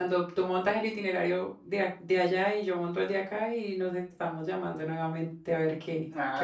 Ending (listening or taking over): taking over